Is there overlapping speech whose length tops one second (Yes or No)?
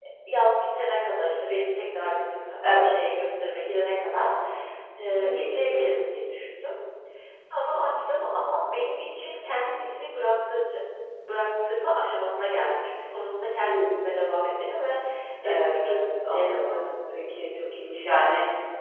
Yes